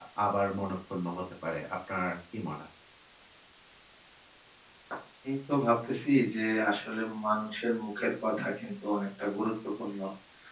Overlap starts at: none

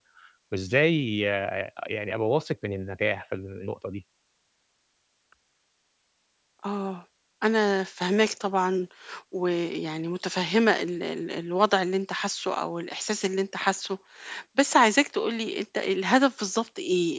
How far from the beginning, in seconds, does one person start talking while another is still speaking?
none

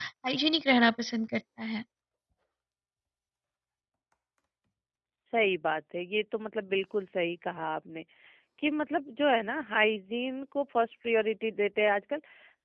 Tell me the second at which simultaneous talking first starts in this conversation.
none

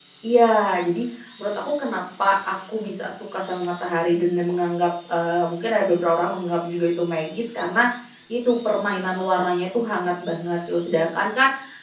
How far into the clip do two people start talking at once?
none

